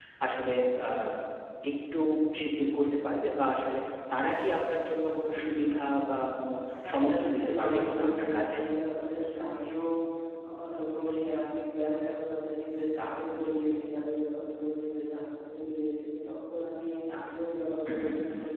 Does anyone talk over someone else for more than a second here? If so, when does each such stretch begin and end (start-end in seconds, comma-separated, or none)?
6.9-8.6